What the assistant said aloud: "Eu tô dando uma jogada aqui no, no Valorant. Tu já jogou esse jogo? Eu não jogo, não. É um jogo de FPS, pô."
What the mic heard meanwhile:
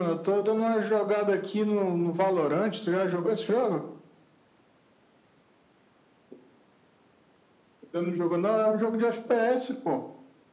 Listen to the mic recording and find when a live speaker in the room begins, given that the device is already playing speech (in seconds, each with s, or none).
none